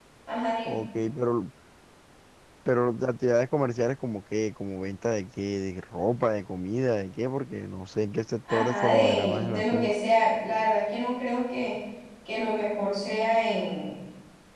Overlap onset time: 8 s

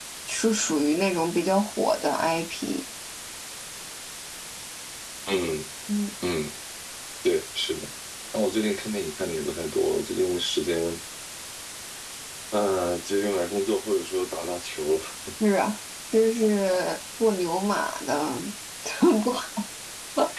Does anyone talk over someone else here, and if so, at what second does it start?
none

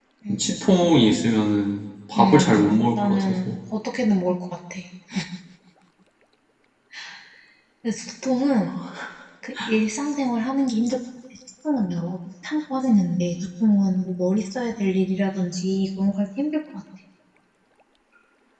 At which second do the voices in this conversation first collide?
2 s

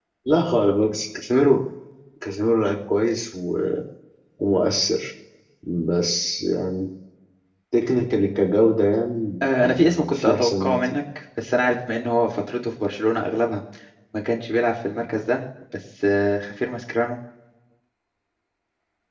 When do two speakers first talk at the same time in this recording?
9 s

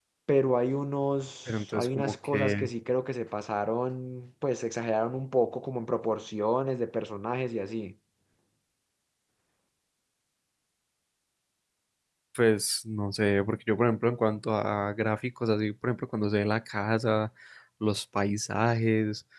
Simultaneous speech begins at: 1 s

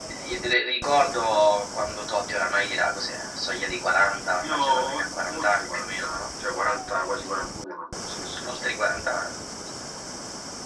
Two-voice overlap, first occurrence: 4 s

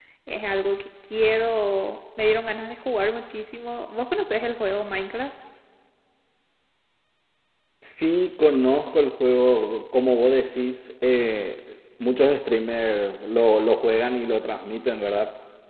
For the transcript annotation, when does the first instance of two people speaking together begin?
none

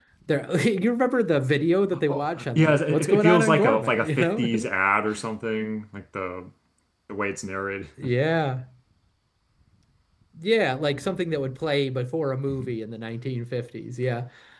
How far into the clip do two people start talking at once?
2 s

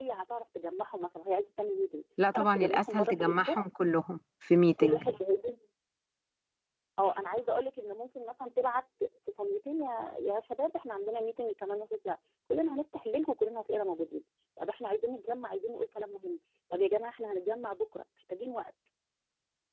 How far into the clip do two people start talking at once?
2 s

